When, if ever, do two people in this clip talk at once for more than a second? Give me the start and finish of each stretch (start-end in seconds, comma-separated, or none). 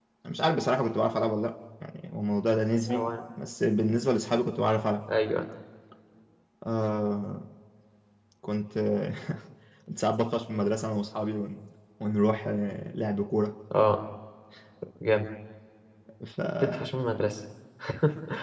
none